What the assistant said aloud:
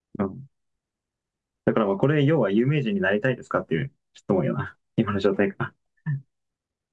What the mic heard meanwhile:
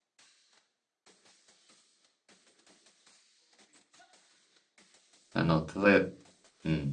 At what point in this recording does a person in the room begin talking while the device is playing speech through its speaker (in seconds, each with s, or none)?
5.3 s